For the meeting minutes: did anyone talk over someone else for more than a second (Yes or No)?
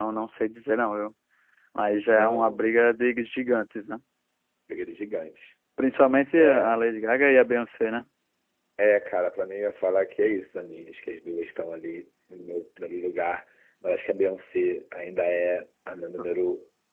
No